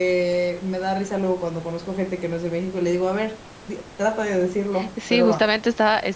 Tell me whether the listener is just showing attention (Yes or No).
No